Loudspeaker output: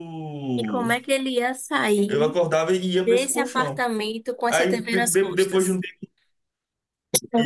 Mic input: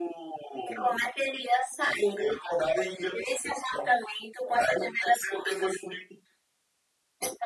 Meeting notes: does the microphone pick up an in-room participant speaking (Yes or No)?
No